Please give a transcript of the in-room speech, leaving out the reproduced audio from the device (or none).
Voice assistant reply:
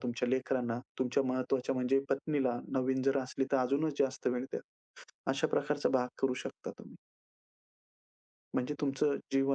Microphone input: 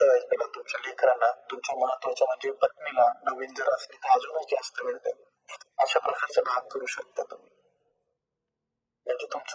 none